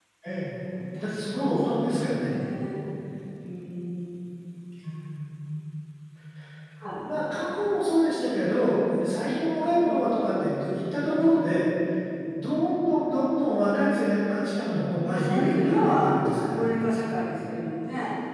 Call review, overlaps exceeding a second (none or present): present